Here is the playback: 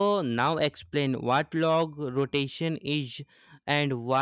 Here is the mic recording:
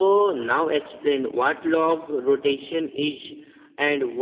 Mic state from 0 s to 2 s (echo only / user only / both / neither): echo only